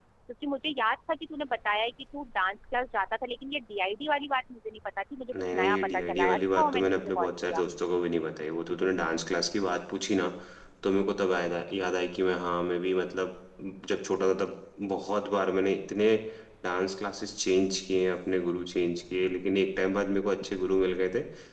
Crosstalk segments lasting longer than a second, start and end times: 5.3-7.6

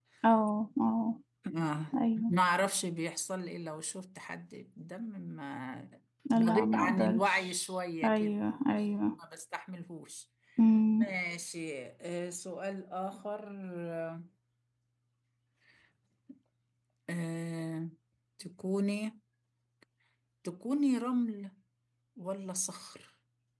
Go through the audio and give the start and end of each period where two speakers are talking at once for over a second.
6.3-7.5

